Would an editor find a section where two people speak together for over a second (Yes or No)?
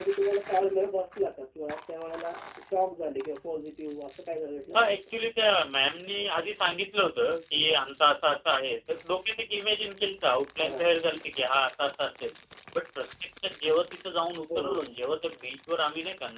No